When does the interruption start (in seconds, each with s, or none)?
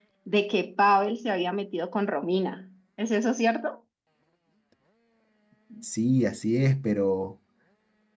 none